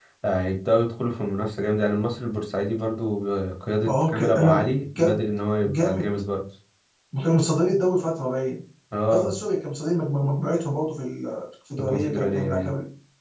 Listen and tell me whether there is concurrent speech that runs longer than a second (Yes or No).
Yes